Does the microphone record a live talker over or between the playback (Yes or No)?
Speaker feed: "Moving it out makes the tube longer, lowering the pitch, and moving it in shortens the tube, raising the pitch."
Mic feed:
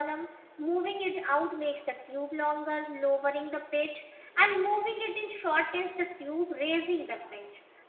No